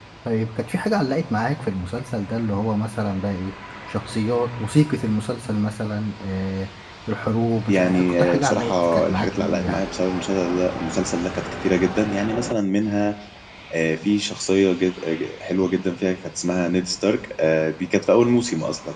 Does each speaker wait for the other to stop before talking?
No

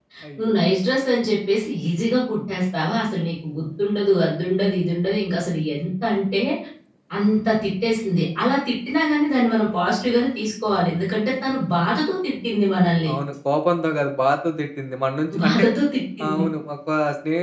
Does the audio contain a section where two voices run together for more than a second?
No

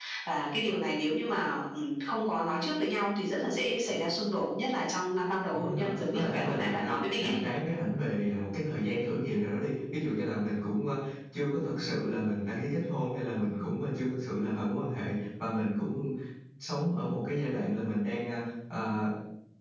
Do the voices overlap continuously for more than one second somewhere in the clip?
Yes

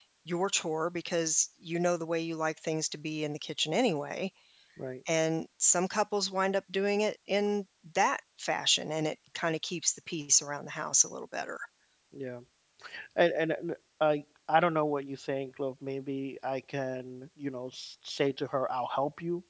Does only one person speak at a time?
Yes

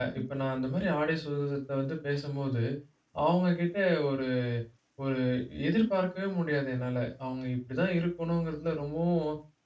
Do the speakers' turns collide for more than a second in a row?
No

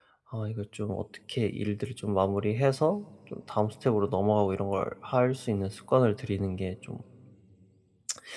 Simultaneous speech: No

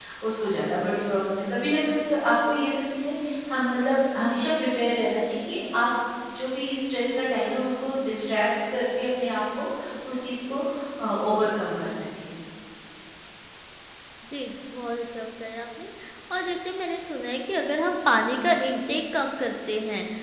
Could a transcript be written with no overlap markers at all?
Yes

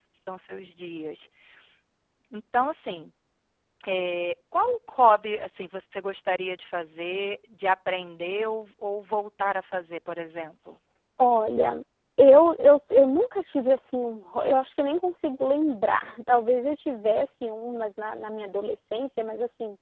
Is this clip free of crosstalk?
Yes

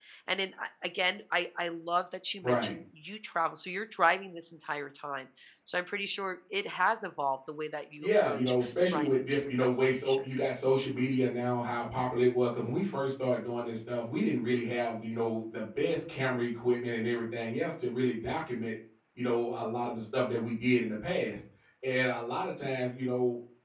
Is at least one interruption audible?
Yes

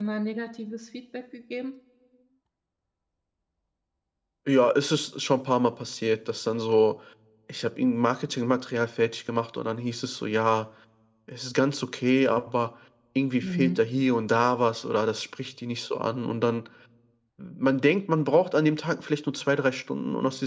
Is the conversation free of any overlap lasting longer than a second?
Yes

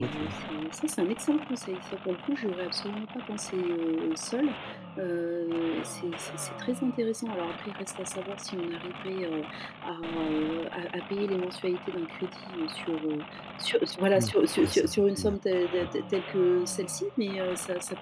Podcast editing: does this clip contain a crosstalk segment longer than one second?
Yes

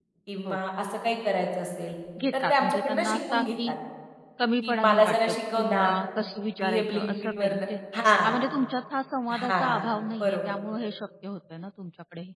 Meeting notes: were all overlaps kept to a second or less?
No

